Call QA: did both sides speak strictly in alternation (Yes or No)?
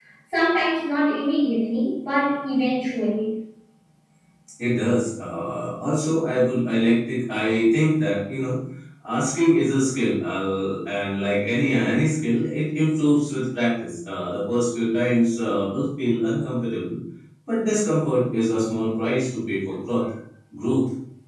Yes